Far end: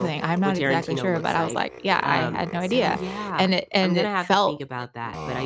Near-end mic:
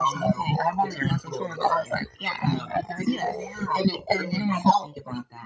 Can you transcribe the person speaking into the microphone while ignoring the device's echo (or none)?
none